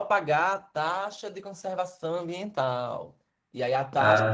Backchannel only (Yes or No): Yes